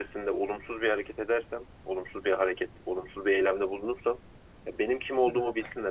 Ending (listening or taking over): listening